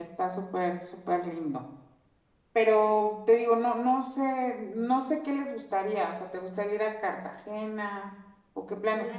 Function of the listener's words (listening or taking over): taking over